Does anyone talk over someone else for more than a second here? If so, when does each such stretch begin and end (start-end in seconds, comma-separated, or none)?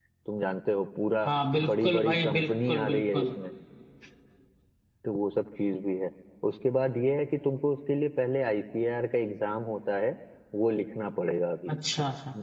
1.6-3.3